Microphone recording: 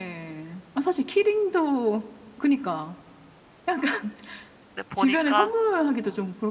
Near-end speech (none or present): present